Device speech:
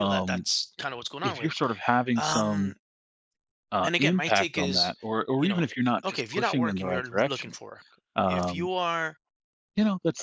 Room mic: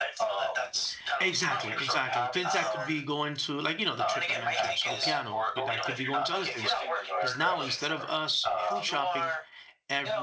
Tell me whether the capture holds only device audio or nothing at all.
No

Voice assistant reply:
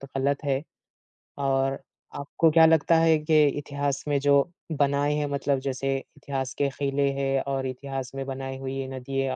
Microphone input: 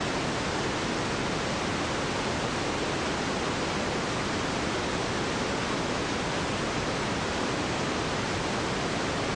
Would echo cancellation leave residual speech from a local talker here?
No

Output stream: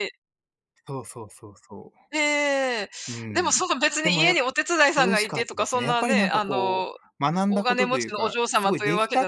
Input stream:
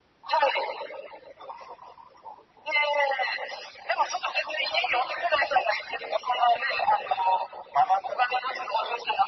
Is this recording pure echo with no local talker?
Yes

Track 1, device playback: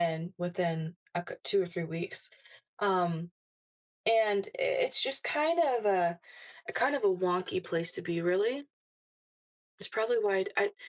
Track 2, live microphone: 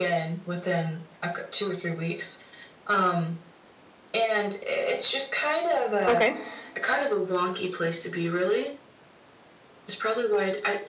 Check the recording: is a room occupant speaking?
Yes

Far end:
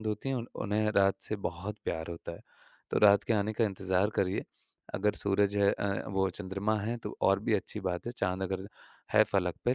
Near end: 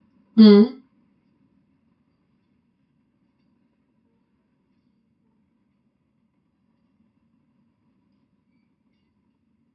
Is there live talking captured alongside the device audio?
Yes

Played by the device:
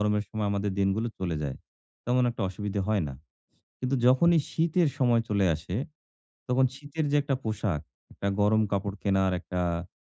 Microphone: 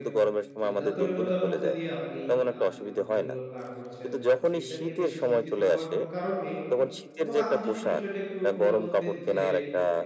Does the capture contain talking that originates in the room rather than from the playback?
Yes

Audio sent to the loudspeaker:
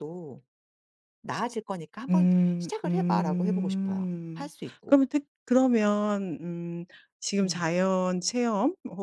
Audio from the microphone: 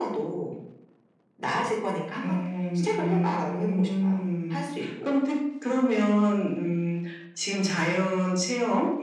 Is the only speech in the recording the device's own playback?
Yes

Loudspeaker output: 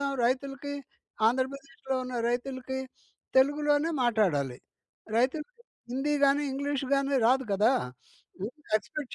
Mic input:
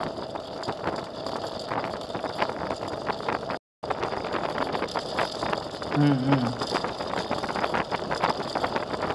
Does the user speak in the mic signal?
Yes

